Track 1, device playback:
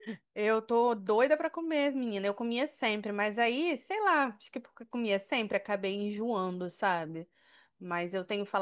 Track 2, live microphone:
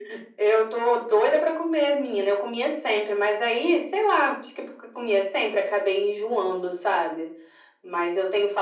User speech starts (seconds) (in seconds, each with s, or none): none